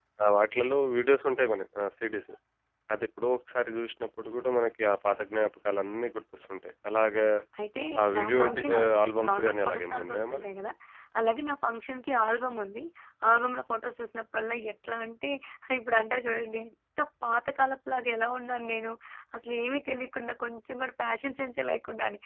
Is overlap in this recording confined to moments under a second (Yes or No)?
No